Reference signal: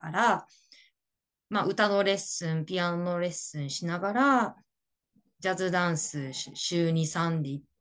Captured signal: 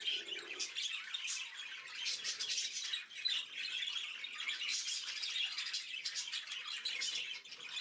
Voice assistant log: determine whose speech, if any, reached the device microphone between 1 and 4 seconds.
neither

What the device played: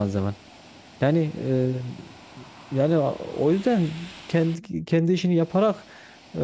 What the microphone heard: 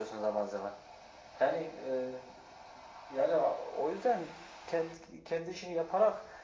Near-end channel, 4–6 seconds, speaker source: echo only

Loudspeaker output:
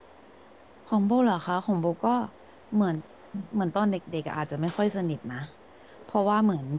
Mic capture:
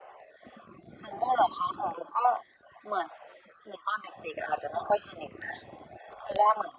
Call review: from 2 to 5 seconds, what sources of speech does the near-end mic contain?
echo only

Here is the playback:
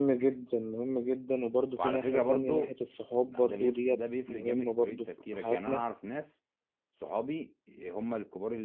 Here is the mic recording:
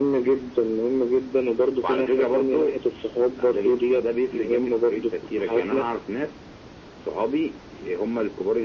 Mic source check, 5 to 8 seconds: echo only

